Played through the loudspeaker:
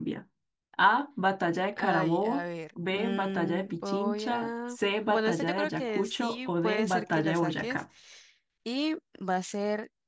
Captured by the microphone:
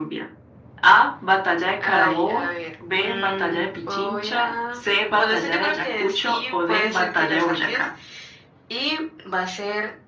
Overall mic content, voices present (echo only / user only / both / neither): echo only